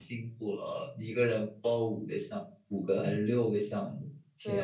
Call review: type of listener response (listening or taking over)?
taking over